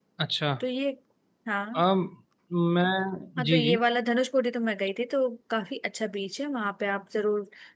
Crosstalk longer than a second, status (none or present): none